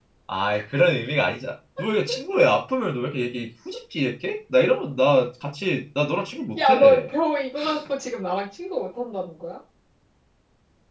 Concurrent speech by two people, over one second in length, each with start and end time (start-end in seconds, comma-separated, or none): none